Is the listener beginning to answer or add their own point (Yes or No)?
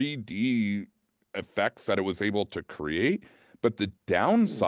No